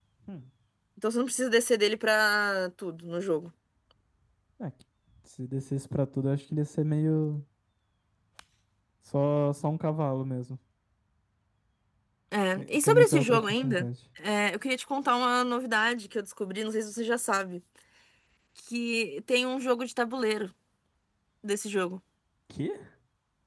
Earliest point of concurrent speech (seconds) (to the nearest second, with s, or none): 13 s